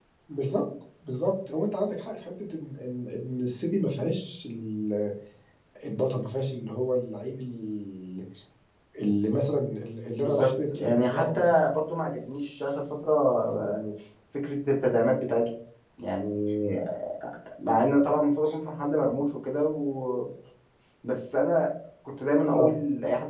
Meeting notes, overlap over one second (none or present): present